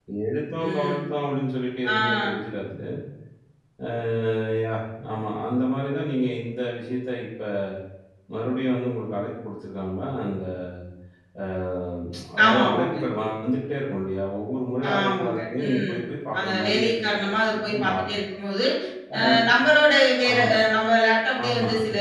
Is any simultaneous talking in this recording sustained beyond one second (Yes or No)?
Yes